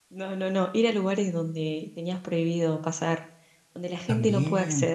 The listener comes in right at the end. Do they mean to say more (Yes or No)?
Yes